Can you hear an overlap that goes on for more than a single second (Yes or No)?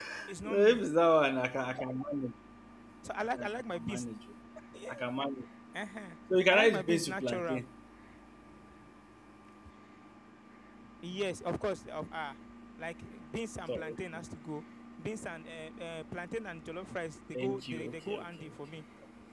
Yes